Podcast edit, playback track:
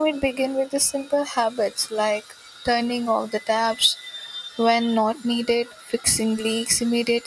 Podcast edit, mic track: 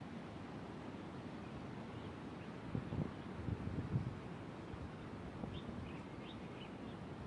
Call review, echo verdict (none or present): none